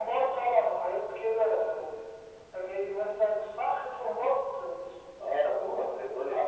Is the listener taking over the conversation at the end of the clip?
Yes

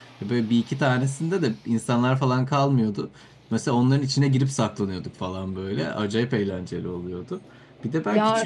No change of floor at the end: No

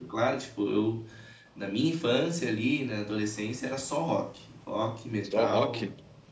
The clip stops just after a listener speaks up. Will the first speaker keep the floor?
Yes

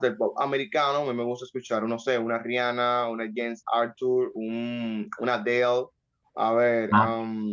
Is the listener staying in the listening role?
Yes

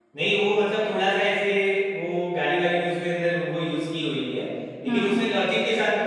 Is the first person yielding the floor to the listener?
No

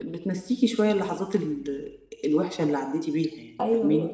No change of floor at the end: No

